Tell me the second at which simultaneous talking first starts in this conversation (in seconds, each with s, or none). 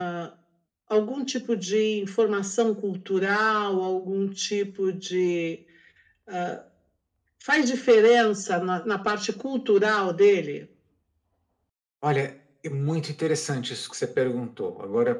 none